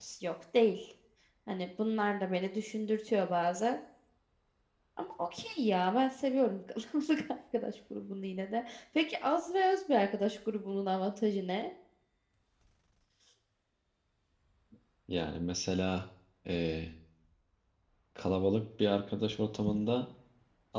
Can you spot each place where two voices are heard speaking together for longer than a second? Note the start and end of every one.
none

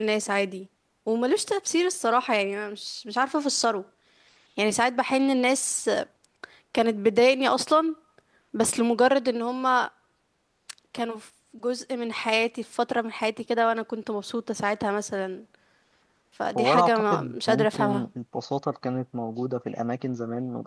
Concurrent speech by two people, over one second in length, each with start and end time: 16.6-18.0

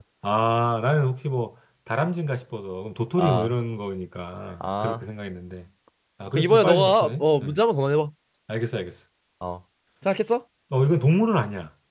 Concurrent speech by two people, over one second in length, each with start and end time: 6.3-7.6

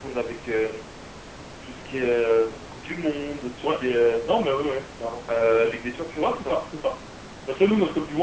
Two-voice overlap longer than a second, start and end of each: none

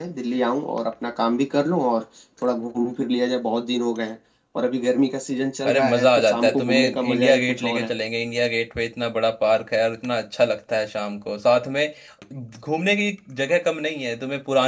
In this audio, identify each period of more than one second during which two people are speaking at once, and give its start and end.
5.7-7.9

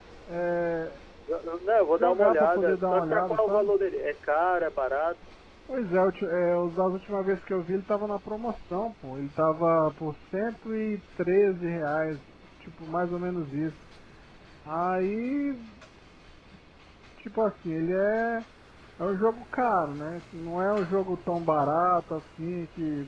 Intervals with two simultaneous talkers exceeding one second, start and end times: 2.0-3.7

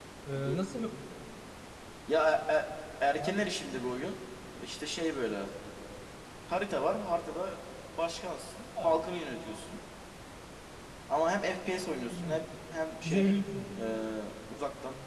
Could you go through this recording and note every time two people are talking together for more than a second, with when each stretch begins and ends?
none

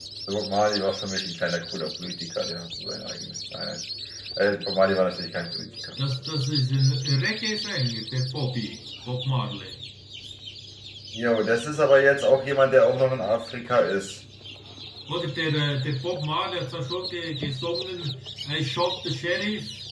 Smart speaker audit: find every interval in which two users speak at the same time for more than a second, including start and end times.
none

